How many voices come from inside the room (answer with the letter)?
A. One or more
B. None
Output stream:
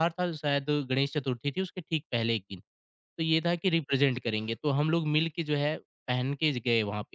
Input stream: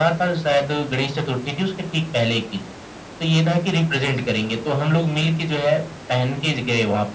B